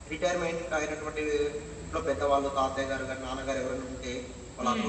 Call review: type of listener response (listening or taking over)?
listening